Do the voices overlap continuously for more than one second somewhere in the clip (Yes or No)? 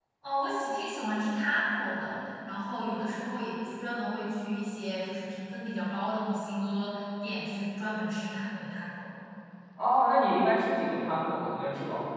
No